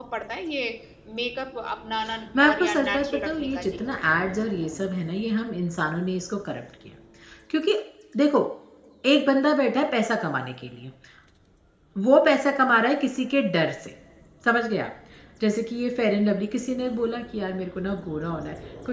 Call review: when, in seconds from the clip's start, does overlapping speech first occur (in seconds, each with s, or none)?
2.4 s